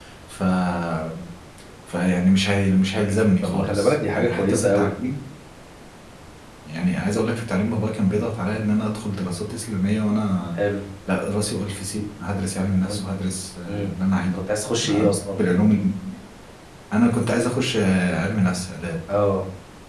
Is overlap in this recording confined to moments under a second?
No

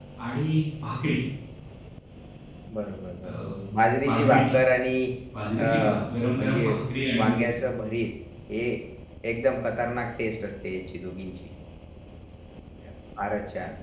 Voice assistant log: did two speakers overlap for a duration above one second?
No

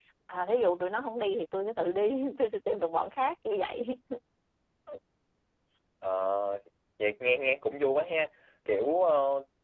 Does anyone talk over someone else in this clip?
No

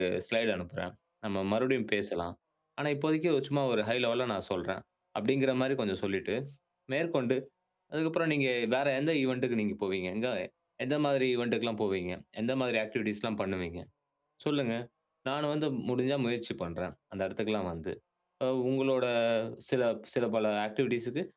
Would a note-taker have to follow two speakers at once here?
No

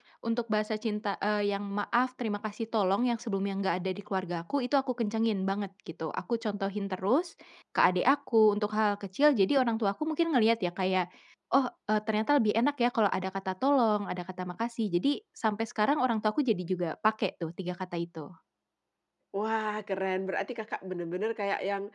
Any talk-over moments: No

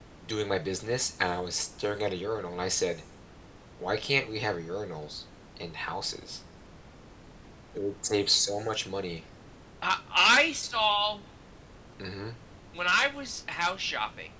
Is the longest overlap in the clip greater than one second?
No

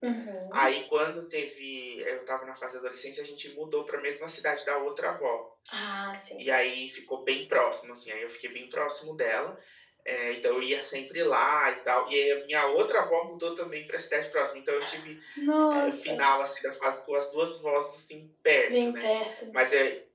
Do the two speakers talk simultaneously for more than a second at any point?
No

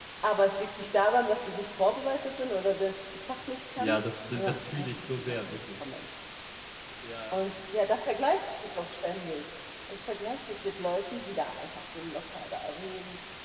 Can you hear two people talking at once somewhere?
Yes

